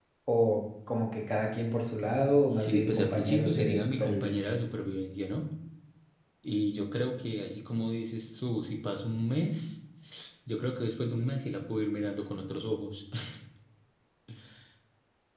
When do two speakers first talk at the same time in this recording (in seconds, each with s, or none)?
2.5 s